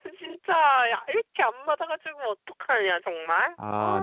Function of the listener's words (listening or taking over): taking over